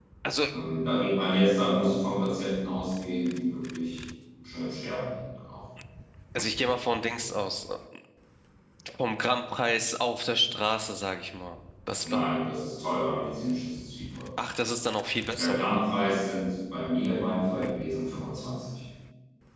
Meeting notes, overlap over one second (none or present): none